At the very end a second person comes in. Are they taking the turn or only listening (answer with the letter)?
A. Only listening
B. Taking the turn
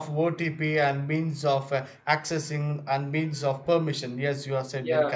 B